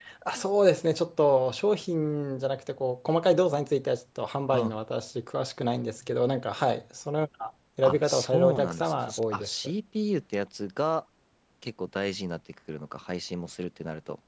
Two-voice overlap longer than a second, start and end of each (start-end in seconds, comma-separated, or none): 7.8-9.5